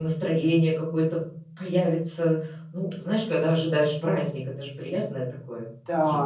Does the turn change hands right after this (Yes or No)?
Yes